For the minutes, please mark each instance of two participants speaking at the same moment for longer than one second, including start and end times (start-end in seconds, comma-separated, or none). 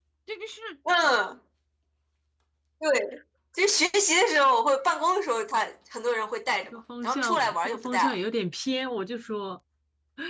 6.7-8.2